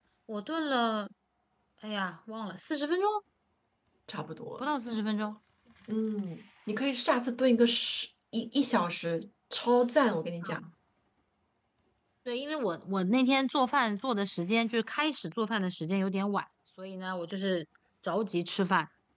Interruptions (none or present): none